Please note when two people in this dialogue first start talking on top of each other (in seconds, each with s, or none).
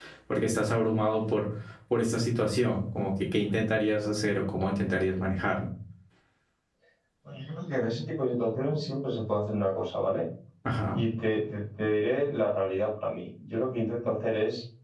none